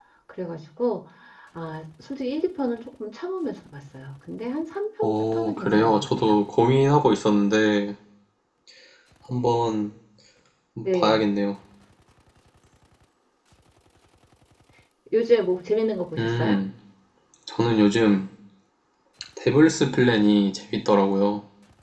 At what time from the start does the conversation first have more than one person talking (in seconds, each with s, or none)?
5.0 s